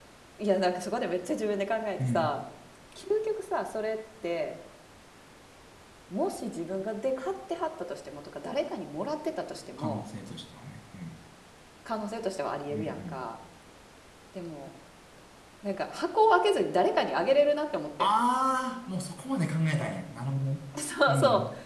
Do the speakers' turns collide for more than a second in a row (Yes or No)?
No